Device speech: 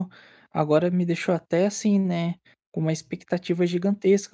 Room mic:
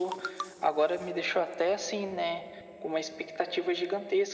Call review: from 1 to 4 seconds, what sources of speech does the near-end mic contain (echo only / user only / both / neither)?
echo only